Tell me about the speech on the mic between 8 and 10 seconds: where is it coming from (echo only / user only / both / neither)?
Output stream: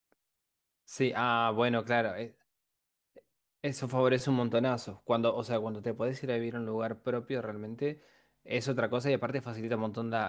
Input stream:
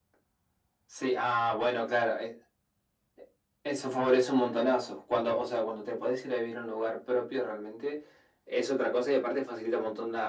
echo only